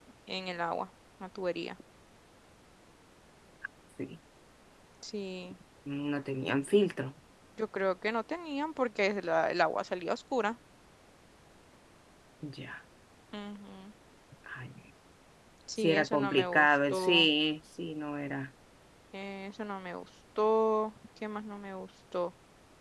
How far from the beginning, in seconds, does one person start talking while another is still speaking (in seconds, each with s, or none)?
15.8 s